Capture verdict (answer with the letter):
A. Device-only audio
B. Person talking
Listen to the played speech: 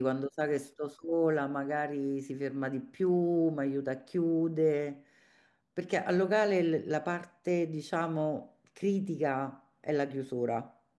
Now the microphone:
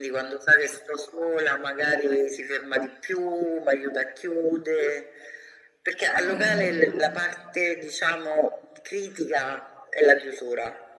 B